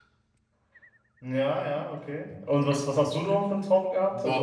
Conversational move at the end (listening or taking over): taking over